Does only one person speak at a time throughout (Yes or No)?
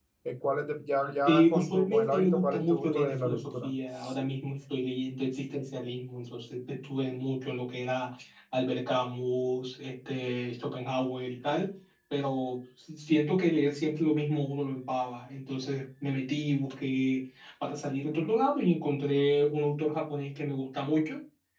No